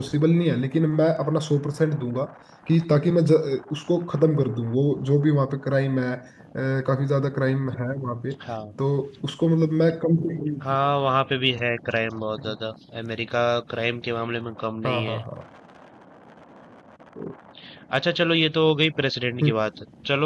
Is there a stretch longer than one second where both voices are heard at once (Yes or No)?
No